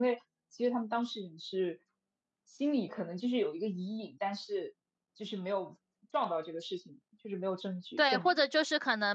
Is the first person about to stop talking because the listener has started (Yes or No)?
Yes